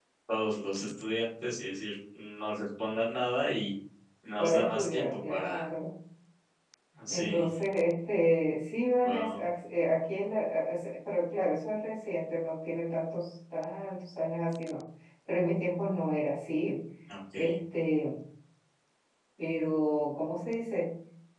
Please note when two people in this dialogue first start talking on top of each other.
4 s

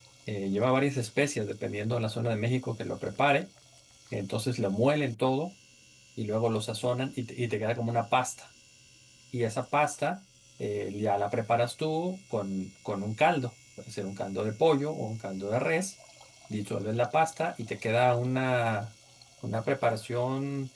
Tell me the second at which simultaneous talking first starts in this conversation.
none

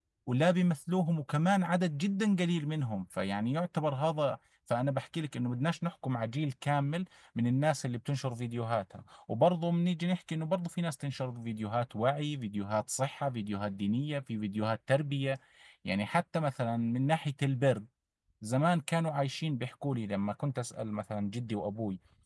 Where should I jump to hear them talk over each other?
none

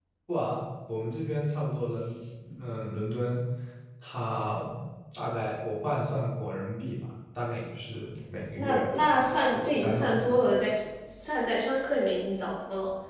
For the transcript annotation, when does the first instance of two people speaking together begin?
8 s

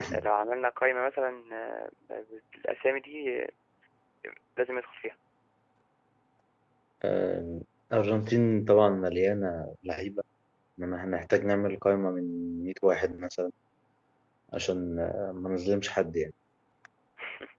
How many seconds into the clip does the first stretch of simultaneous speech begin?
none

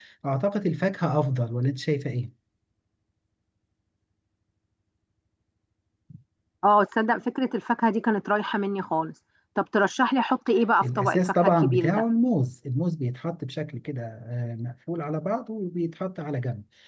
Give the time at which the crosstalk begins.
11 s

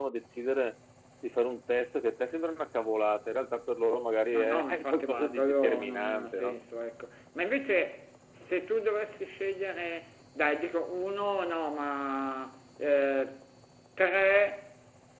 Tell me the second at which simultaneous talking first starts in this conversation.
4 s

